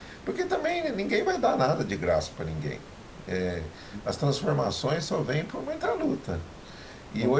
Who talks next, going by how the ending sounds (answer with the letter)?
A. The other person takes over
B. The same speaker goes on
B